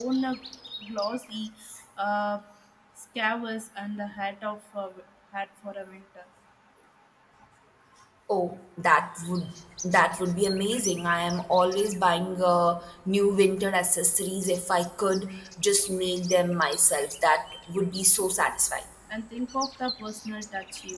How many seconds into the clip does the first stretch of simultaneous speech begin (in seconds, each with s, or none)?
none